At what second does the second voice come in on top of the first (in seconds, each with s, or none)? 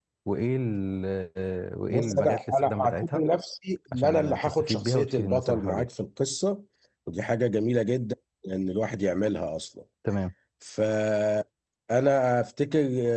1.9 s